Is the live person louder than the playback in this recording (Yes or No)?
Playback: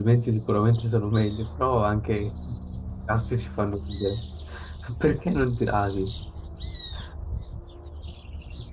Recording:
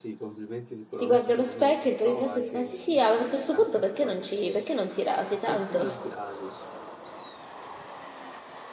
Yes